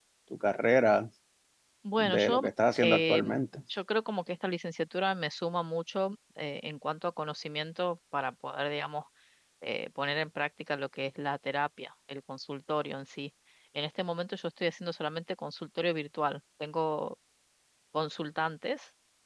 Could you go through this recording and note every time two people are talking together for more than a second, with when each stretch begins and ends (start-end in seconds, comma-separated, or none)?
2.0-3.4